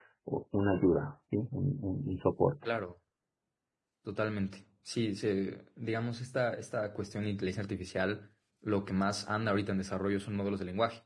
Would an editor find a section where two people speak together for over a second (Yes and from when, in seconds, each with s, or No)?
No